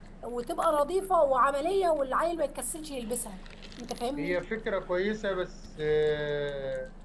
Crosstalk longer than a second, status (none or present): none